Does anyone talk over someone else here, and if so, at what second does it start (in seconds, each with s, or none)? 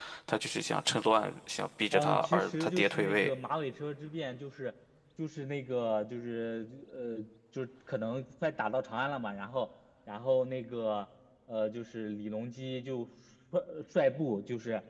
1.9 s